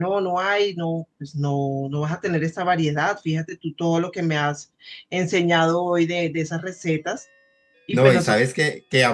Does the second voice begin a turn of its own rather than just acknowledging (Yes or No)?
Yes